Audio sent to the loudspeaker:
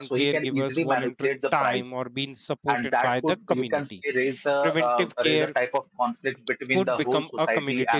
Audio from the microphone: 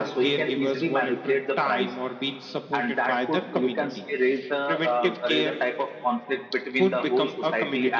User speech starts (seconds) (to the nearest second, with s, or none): none